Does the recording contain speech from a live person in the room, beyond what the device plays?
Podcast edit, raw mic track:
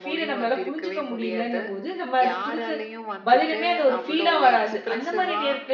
Yes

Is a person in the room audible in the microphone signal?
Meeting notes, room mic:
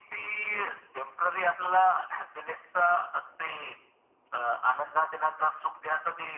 No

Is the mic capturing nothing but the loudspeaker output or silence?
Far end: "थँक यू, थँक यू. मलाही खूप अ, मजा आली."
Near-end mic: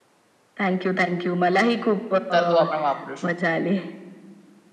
No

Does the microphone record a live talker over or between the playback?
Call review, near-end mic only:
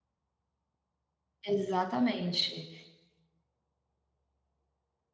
Yes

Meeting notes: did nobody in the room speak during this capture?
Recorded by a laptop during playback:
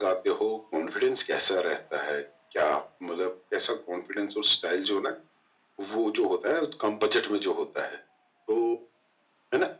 Yes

